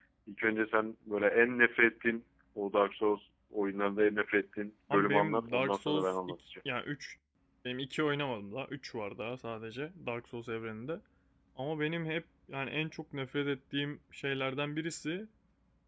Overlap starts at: 4.9 s

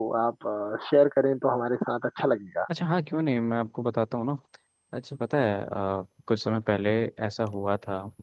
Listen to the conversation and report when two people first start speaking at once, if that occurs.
none

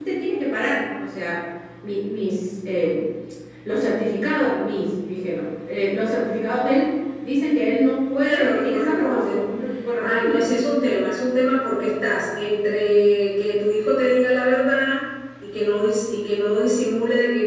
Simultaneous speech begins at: 8.2 s

